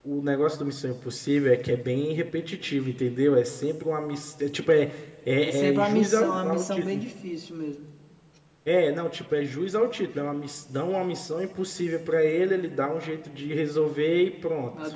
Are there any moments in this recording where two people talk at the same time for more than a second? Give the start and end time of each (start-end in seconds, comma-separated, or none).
5.4-7.0